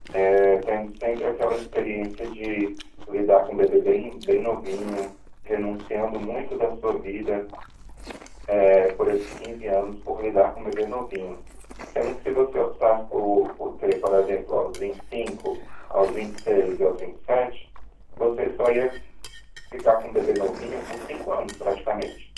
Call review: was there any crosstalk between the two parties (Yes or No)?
No